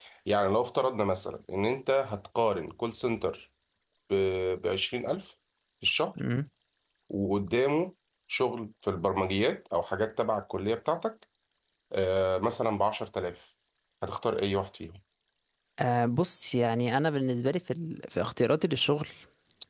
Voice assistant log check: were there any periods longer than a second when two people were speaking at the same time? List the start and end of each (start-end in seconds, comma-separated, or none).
none